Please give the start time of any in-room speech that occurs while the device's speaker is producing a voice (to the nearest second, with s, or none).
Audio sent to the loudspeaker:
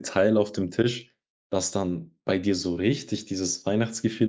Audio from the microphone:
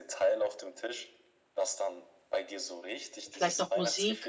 3 s